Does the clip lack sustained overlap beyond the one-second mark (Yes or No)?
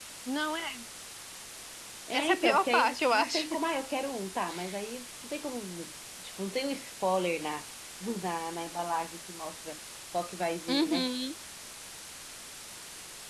No